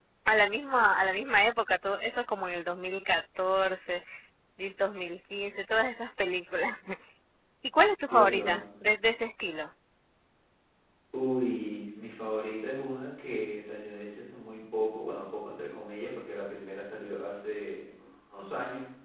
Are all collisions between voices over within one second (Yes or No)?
Yes